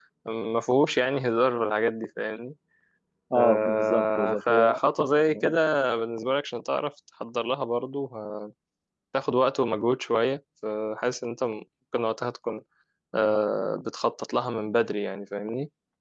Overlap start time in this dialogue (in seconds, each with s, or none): 3.3 s